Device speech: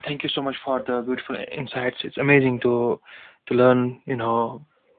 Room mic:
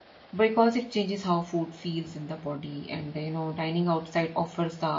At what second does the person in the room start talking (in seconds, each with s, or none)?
0.3 s